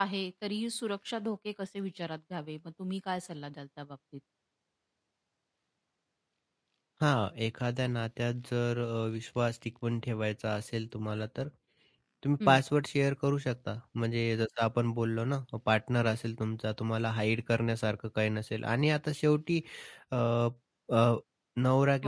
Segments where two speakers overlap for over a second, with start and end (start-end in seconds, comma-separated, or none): none